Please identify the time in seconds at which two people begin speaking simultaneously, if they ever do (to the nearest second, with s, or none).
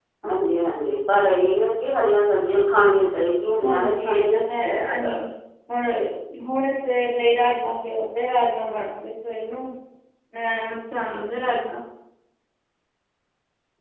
4 s